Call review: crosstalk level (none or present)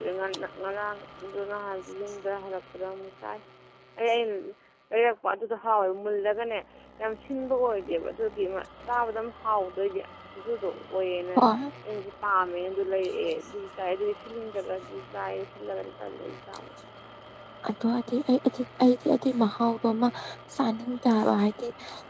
none